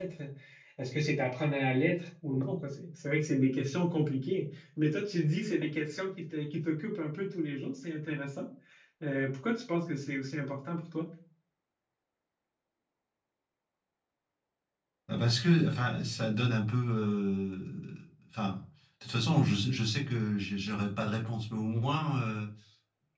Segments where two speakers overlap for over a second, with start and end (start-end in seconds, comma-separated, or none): none